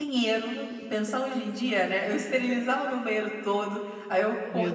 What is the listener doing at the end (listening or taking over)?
listening